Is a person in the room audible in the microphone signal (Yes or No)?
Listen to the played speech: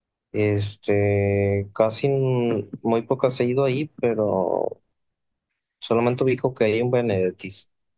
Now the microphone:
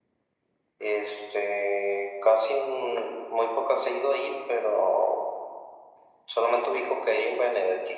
No